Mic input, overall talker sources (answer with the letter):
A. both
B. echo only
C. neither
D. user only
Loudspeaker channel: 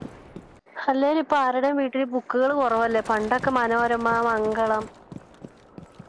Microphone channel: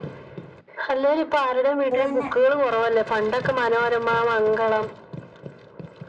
A